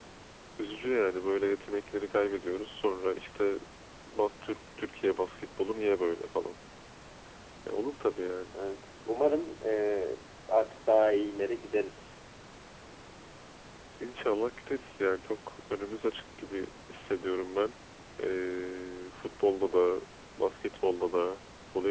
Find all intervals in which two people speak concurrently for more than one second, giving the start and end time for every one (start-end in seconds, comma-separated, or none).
none